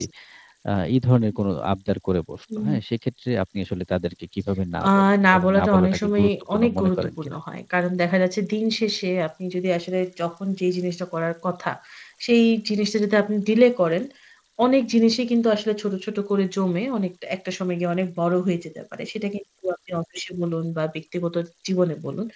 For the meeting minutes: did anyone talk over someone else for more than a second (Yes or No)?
Yes